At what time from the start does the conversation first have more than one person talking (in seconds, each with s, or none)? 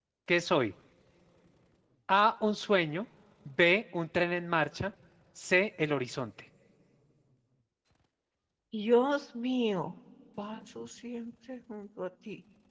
none